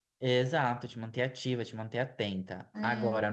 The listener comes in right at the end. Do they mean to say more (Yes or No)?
No